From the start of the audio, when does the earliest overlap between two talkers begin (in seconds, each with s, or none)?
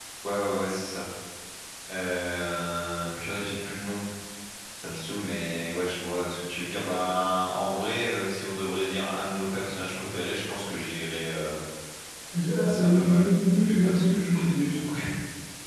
12.6 s